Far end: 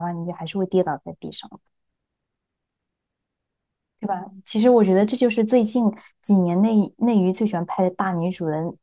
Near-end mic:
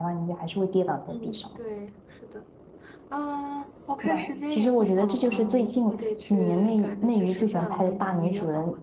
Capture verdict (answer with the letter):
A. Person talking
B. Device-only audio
A